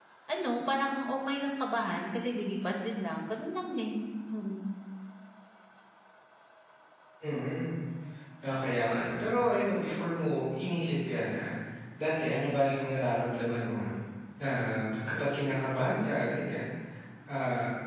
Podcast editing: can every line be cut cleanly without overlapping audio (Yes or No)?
Yes